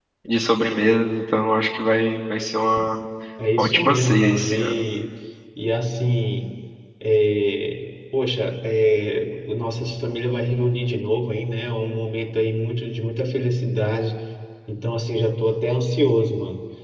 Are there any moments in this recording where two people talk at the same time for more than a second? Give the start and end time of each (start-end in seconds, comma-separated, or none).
3.6-4.8